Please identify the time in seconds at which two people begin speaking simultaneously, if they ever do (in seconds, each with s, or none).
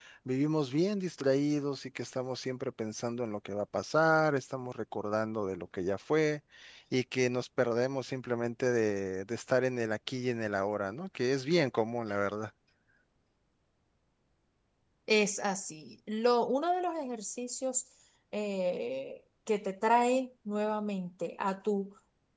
none